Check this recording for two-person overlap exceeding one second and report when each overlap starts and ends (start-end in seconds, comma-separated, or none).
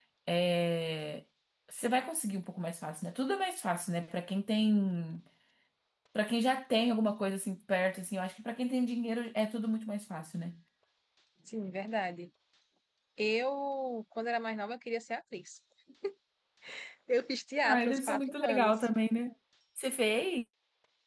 17.6-18.9